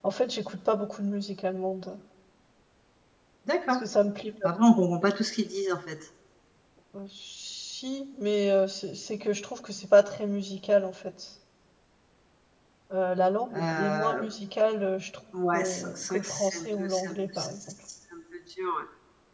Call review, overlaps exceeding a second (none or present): present